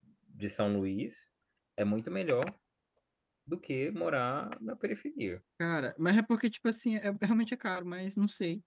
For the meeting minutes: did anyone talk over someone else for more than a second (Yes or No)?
No